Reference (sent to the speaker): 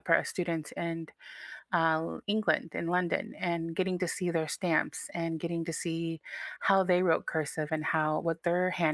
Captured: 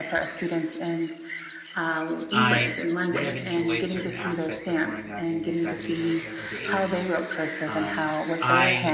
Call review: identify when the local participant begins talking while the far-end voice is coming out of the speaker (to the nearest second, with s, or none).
2 s